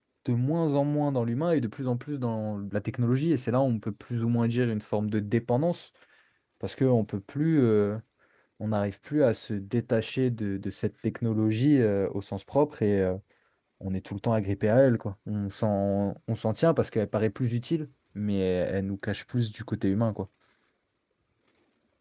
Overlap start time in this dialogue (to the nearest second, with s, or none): none